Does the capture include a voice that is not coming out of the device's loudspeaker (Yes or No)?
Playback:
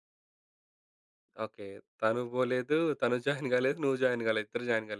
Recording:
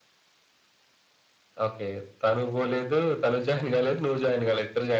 No